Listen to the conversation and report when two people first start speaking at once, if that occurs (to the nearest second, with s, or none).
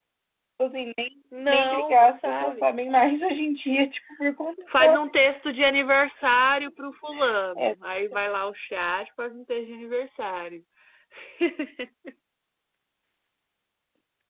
1 s